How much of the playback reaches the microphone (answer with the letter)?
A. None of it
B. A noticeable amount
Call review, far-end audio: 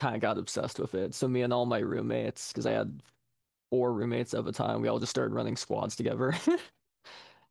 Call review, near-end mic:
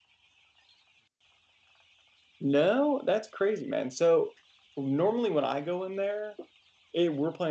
A